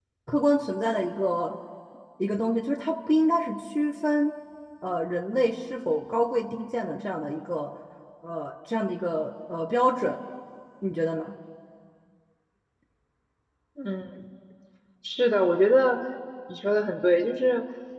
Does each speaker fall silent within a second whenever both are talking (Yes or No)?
Yes